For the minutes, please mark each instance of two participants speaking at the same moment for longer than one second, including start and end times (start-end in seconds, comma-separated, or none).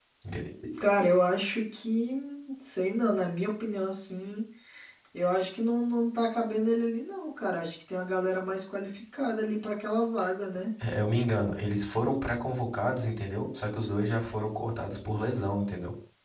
none